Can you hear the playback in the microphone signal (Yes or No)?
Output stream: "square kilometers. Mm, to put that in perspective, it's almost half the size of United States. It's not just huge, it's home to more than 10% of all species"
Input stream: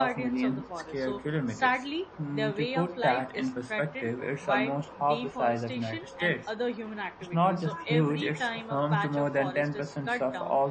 Yes